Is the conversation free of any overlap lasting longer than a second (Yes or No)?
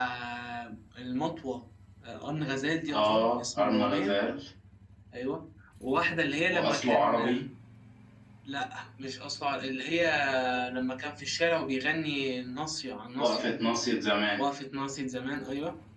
No